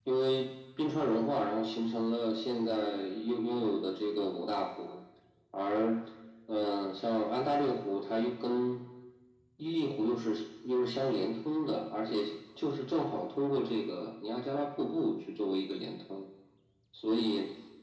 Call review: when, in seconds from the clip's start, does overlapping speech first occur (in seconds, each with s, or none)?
none